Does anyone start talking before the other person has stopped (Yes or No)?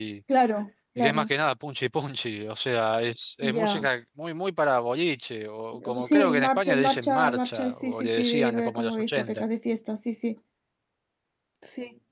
Yes